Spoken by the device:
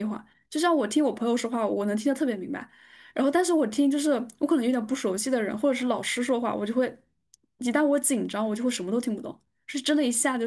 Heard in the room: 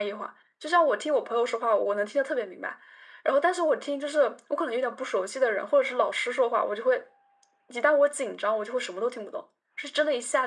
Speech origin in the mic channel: echo only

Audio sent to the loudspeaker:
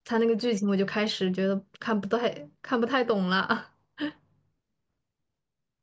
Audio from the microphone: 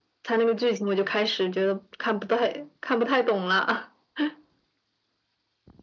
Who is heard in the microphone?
echo only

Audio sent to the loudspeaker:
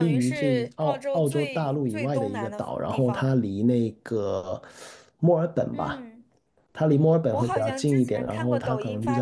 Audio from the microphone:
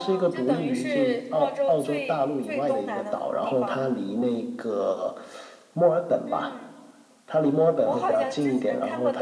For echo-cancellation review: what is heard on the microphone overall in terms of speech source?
echo only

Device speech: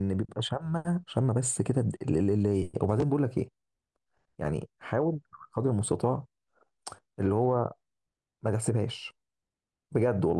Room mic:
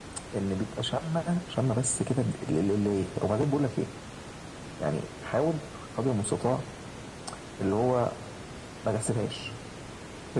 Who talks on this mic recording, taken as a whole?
echo only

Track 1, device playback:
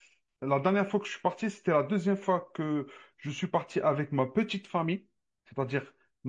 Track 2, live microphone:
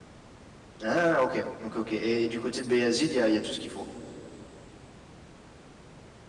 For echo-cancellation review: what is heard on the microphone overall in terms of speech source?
user only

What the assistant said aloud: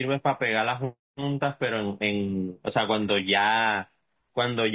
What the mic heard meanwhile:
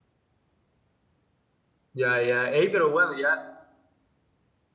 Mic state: user only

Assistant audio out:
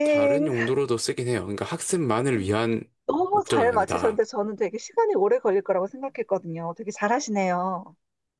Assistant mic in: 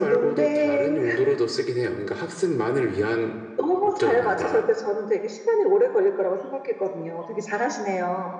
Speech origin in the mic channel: echo only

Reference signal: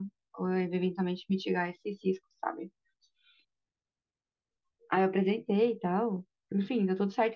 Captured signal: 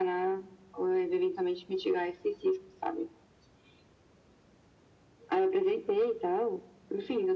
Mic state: echo only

